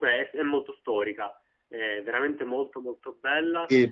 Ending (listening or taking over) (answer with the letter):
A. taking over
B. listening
A